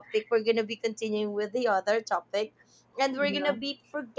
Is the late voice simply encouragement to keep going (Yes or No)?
Yes